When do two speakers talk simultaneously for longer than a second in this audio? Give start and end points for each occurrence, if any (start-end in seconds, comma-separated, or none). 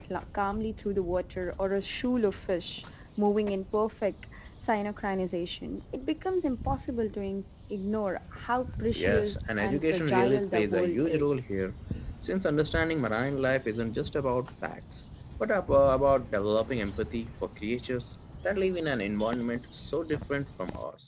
8.9-11.2